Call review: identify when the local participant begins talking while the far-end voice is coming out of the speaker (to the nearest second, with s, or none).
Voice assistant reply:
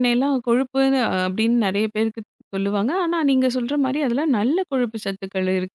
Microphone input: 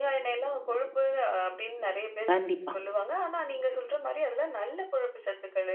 2 s